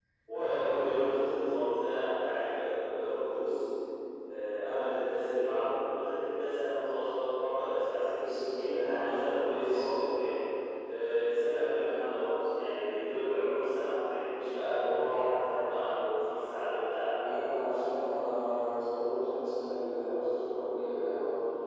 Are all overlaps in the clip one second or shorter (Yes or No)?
No